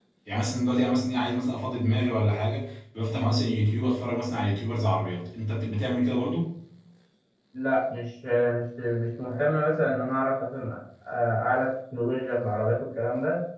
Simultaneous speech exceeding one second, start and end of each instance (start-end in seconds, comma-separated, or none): none